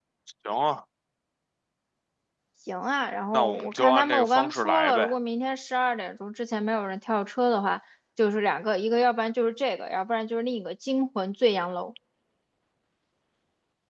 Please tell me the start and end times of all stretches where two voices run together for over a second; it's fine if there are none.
3.3-5.1

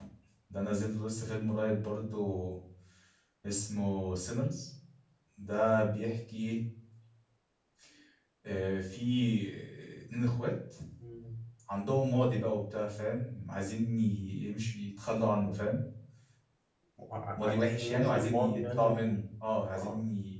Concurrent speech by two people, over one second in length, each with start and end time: 17.4-19.1

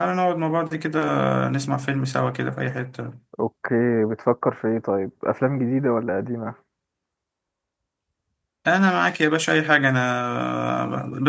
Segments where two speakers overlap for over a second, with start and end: none

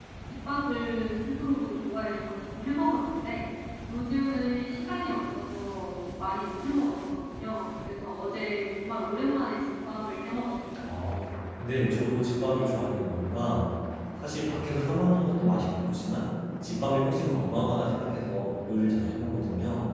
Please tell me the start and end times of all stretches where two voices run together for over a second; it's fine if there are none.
none

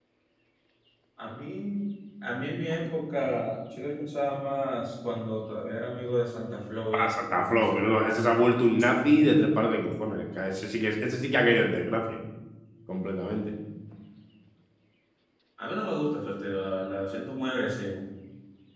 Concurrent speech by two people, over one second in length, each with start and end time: 6.9-8.3

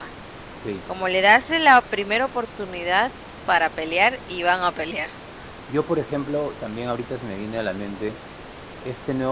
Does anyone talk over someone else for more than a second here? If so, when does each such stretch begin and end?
none

